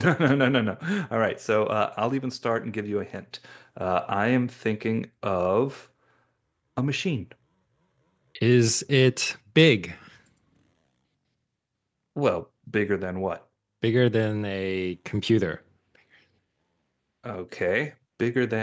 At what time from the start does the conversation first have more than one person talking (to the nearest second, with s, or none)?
none